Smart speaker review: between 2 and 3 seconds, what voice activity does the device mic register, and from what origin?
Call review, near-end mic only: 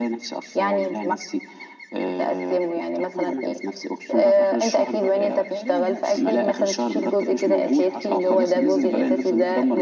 echo only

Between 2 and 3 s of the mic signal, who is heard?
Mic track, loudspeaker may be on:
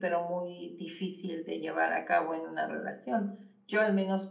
echo only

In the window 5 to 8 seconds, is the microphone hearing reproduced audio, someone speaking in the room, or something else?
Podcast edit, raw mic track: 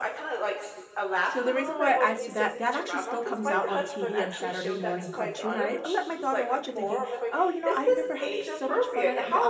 both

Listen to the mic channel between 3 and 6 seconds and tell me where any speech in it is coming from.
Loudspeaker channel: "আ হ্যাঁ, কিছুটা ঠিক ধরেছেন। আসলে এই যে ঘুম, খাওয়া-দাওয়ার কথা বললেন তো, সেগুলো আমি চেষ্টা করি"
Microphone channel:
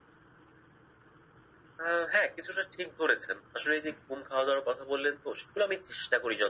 echo only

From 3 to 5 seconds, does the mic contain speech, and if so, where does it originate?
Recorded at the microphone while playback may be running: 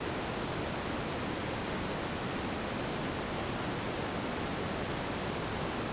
neither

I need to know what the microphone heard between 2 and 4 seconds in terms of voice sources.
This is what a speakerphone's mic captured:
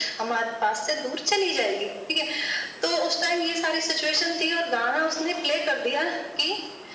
echo only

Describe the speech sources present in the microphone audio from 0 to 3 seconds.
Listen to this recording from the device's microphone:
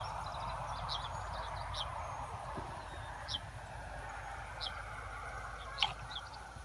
neither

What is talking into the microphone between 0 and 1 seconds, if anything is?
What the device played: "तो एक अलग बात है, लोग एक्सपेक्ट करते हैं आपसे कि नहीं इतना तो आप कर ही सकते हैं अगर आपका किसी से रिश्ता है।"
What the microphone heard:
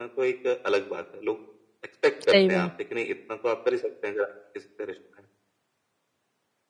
echo only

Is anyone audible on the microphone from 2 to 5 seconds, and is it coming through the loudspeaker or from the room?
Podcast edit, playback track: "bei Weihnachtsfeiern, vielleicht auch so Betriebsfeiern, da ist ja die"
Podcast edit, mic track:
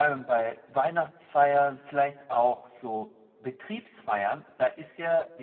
echo only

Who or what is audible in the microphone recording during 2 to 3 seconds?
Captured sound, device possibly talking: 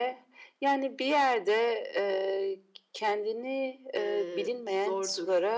echo only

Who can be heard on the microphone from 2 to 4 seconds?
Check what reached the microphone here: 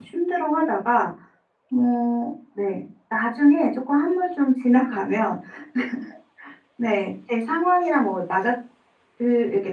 user only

